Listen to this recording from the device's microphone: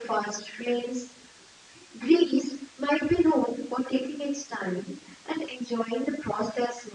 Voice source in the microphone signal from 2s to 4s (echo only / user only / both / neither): echo only